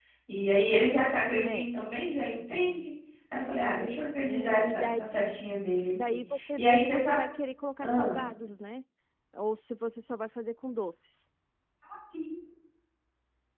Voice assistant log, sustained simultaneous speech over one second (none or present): present